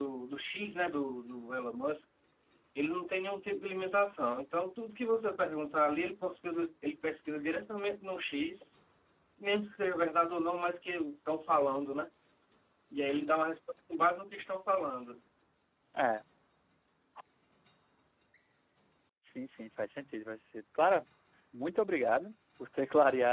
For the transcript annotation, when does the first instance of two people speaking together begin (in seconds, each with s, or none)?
none